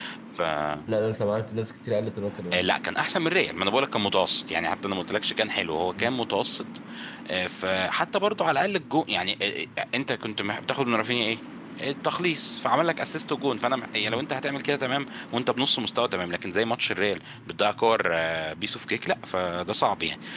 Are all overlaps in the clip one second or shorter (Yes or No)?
Yes